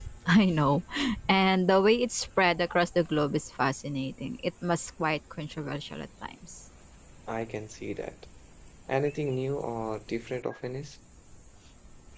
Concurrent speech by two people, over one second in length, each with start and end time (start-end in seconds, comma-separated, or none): none